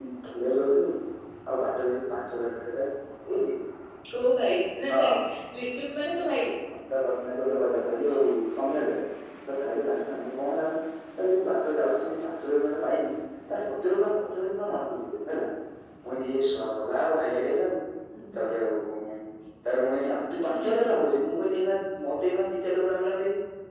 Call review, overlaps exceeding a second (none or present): none